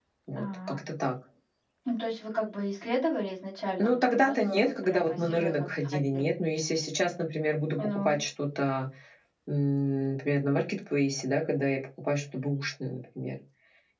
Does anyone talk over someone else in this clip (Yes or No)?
Yes